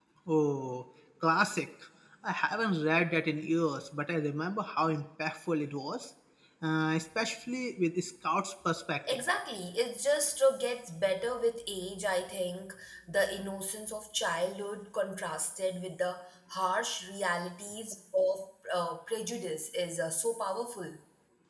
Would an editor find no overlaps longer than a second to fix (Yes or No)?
Yes